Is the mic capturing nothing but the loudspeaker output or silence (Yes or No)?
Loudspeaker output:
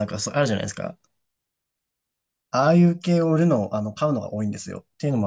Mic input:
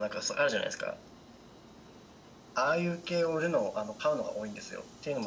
Yes